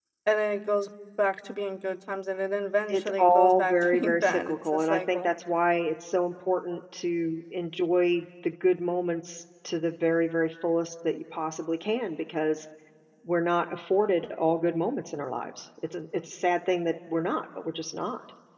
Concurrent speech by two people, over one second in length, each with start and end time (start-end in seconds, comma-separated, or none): 2.9-5.3